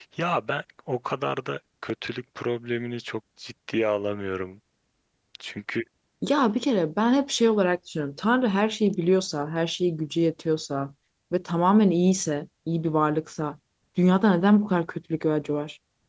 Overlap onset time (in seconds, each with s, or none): none